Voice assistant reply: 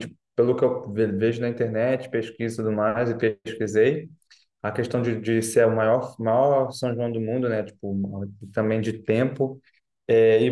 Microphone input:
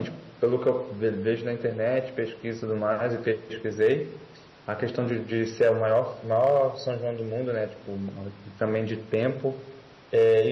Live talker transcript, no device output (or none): none